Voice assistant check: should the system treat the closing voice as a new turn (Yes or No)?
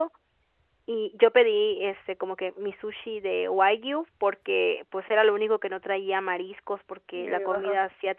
No